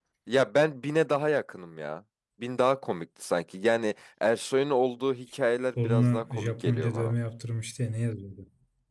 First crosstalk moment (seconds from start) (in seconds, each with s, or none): 5.8 s